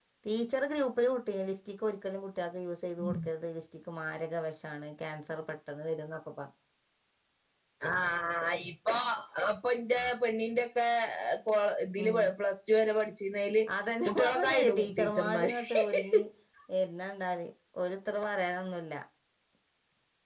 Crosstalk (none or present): present